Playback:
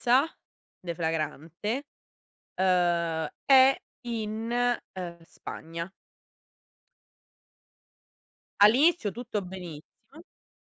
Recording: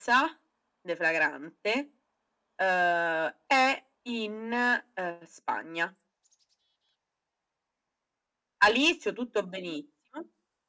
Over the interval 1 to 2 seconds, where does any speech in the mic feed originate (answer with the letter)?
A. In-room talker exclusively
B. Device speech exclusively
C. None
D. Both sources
B